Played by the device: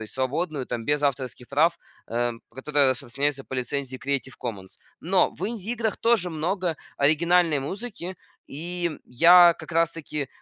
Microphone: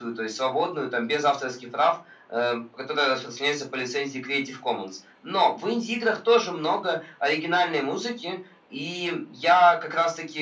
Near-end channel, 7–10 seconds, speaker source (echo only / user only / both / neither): echo only